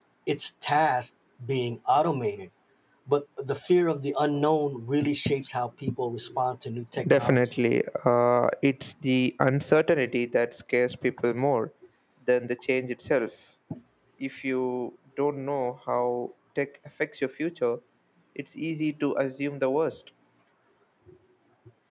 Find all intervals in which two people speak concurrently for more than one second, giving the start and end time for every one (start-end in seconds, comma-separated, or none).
none